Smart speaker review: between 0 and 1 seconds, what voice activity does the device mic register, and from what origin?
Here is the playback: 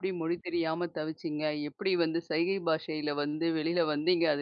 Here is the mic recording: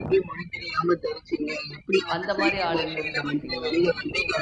echo only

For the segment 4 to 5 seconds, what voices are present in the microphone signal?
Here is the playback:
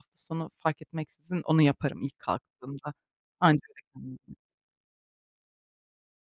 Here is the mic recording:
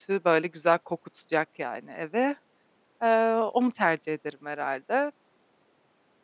user only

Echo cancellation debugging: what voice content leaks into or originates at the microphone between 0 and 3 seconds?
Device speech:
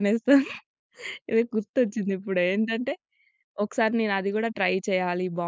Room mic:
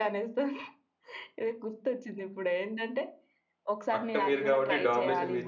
echo only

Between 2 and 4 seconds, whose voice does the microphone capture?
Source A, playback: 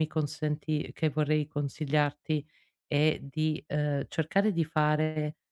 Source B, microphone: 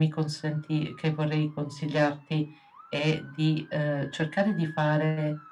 echo only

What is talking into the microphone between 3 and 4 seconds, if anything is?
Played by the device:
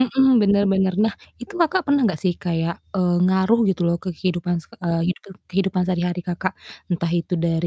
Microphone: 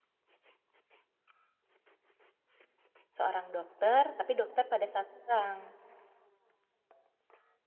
user only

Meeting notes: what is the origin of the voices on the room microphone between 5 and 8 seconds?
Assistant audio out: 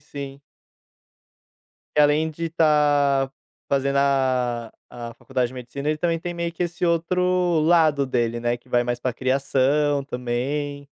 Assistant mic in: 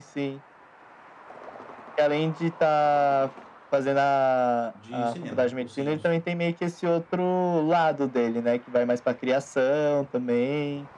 both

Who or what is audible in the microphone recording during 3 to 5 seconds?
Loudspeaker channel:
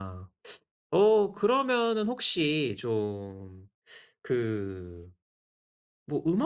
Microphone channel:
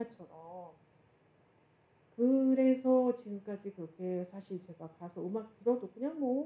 user only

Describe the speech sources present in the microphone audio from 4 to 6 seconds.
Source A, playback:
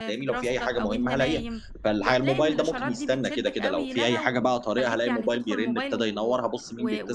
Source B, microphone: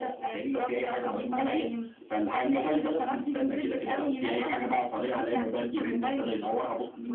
echo only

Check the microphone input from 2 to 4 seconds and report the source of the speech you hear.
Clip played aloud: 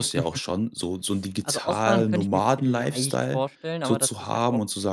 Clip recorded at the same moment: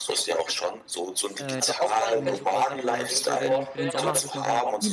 both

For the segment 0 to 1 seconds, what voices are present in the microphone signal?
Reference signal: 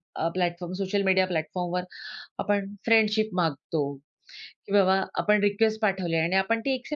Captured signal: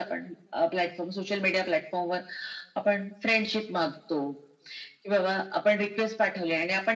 echo only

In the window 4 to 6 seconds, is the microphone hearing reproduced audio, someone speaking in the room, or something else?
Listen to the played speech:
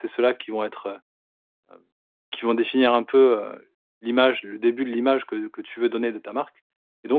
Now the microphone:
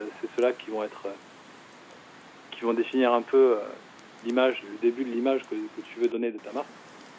echo only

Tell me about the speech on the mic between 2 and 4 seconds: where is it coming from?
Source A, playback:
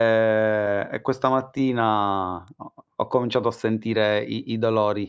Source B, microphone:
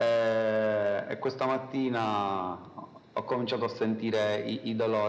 echo only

